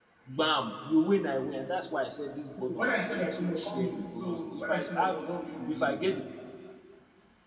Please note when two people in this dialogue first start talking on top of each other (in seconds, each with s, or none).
2.6 s